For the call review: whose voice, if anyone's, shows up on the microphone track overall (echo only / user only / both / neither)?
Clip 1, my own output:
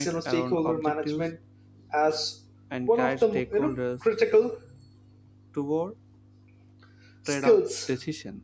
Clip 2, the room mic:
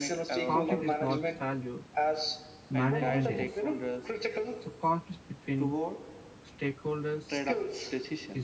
both